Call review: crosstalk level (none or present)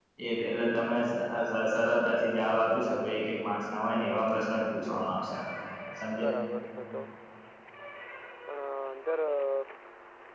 present